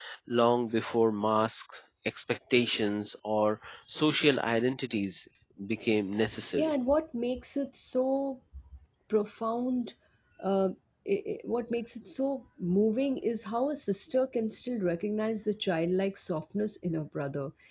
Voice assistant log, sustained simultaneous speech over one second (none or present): none